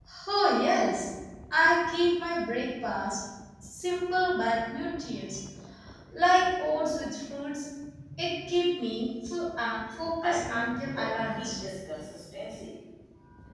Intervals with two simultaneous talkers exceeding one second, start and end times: 10.2-11.5

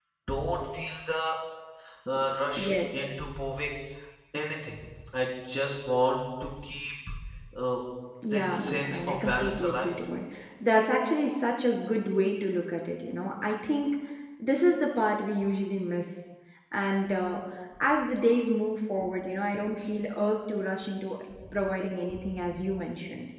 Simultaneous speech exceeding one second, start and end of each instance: 8.3-9.9

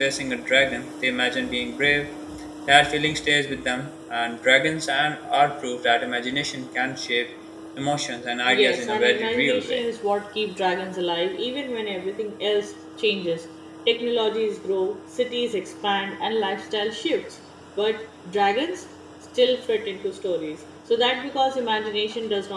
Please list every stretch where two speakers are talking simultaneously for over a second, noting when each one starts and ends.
8.5-9.8

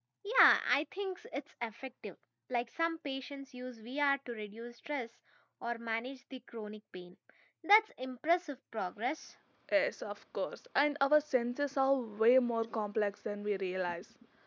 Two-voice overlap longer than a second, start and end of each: none

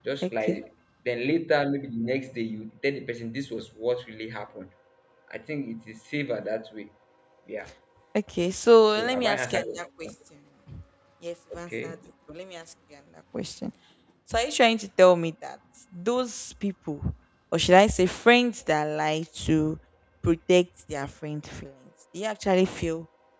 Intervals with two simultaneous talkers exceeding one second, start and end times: 8.9-10.1

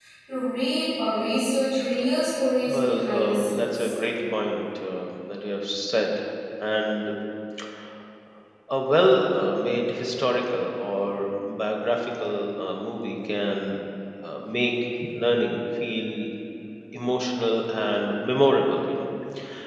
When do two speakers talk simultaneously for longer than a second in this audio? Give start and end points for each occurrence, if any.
2.7-3.9

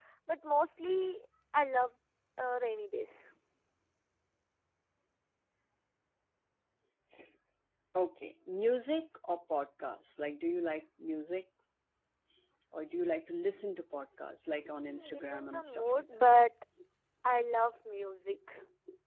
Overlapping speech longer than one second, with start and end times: 14.6-16.0

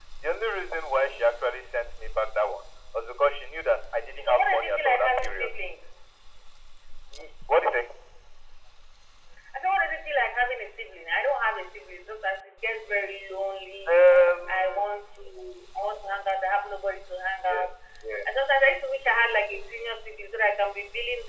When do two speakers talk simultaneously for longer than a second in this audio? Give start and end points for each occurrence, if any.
4.2-5.5

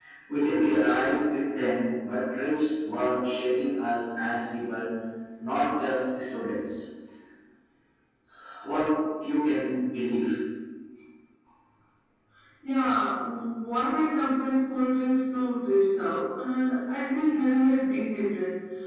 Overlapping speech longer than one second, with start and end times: none

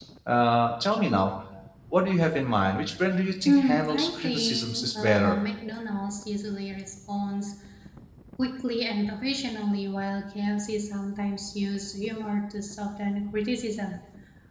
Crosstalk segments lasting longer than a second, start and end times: 3.5-5.4

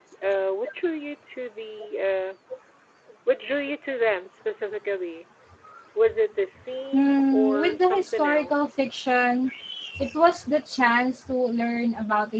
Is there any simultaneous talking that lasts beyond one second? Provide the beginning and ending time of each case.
6.9-8.7

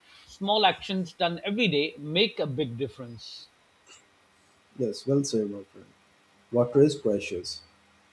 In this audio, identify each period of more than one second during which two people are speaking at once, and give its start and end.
none

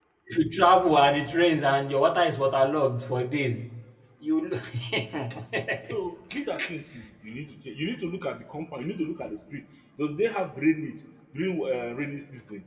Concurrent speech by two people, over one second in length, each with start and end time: none

